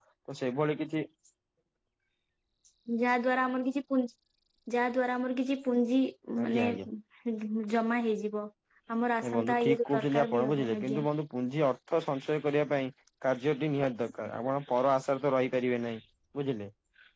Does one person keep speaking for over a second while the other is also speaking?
Yes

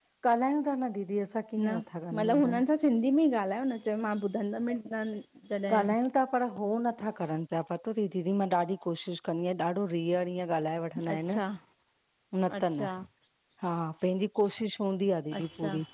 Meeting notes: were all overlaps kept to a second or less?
Yes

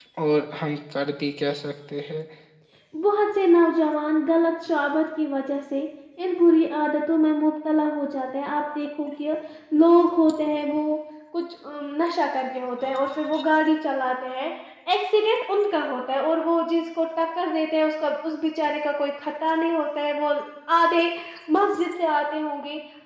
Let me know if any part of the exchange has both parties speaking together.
No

